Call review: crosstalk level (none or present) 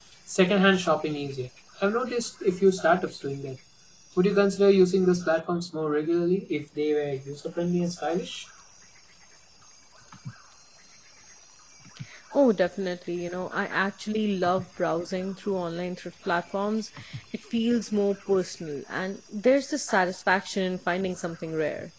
none